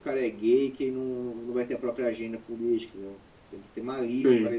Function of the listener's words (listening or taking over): listening